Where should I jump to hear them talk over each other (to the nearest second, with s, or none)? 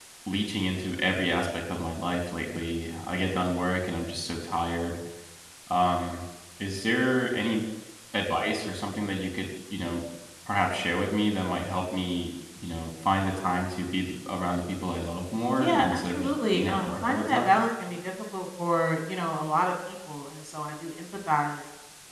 16 s